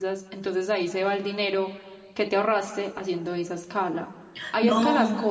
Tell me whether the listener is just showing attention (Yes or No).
Yes